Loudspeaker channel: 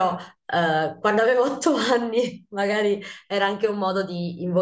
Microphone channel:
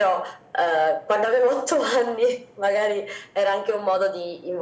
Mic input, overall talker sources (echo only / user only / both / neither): echo only